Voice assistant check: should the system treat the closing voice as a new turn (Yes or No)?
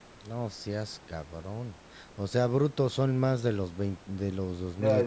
Yes